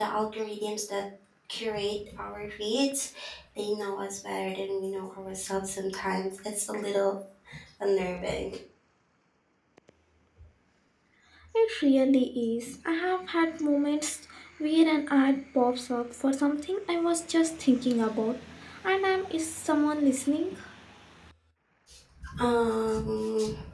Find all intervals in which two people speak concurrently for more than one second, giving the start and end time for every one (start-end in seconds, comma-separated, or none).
none